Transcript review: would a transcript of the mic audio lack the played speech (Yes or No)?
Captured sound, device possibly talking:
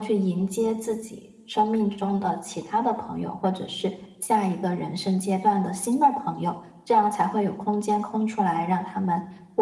No